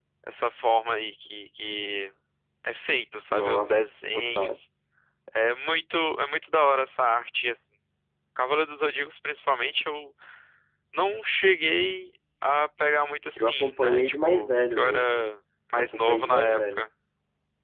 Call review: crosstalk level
present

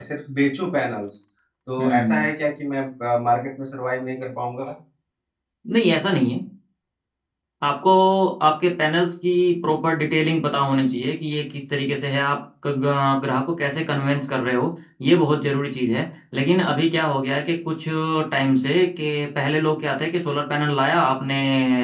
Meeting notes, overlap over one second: none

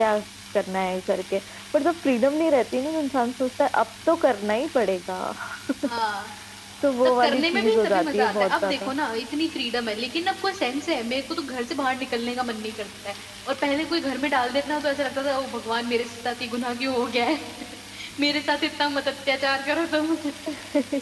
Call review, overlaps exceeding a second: present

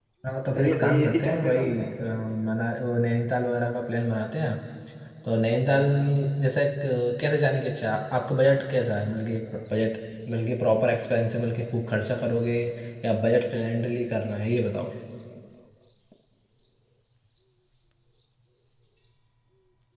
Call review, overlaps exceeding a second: present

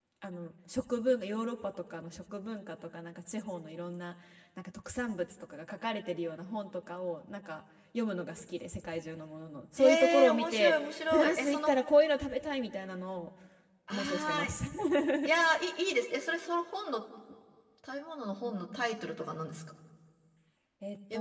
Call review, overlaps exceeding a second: present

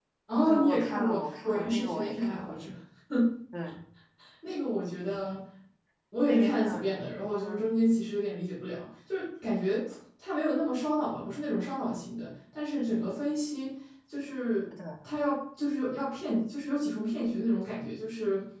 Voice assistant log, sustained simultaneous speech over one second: present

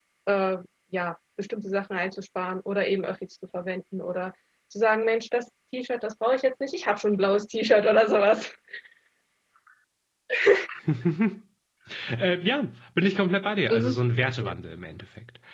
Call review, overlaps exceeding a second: none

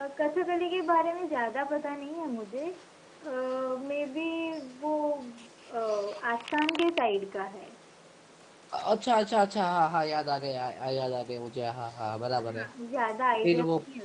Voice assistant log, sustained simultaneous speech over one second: none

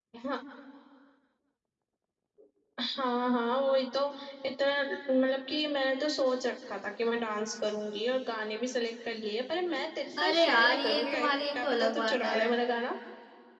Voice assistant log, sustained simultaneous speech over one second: present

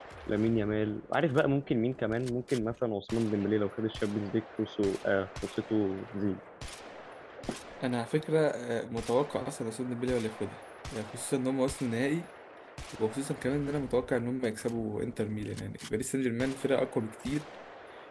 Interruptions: none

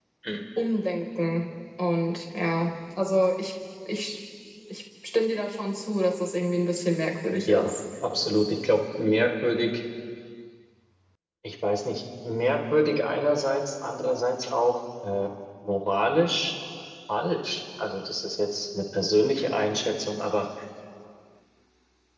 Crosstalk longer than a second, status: none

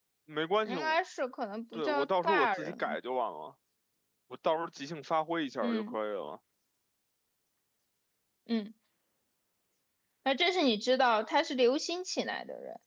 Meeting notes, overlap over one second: present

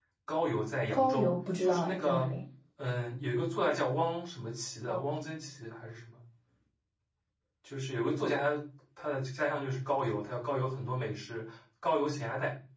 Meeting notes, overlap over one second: present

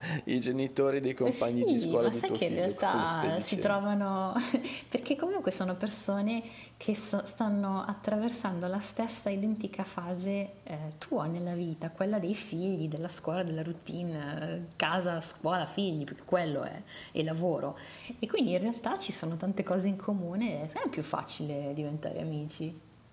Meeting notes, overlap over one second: present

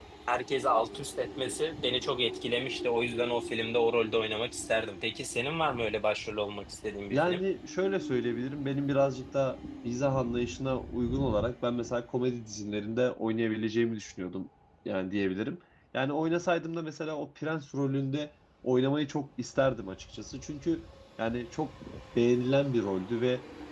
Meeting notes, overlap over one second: none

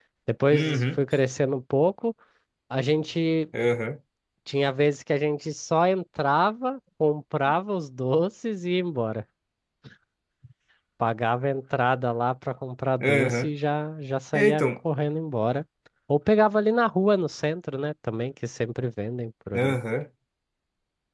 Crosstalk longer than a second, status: none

